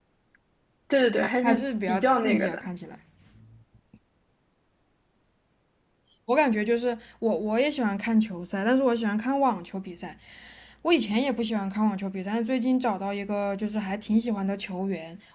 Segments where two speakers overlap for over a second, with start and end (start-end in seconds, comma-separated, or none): 1.4-2.7